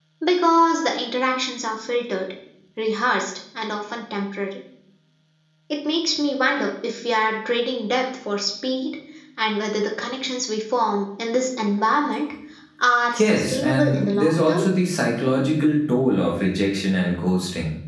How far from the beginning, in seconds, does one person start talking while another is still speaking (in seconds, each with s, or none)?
13.2 s